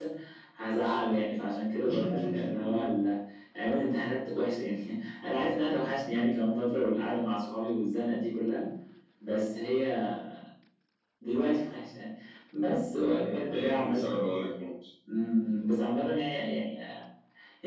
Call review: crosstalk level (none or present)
present